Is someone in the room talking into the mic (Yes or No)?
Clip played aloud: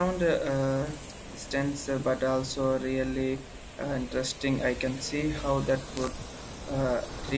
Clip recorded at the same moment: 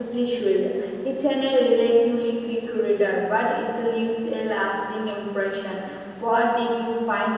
Yes